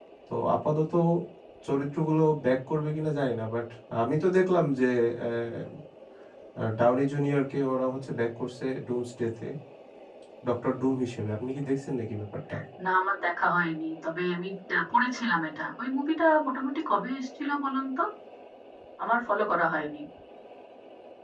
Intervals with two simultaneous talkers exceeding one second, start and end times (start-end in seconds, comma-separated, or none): none